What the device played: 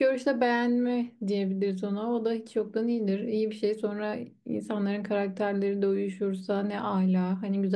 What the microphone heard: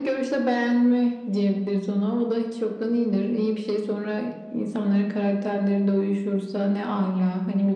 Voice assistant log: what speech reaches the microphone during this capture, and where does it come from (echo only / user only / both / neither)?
echo only